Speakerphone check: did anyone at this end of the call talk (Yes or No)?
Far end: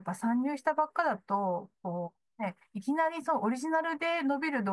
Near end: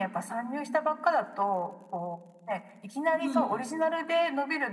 Yes